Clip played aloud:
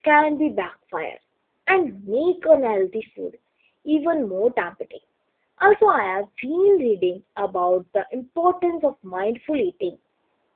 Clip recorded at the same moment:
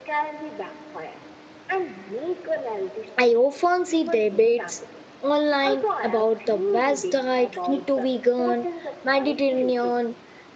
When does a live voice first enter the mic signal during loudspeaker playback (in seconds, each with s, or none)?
3.2 s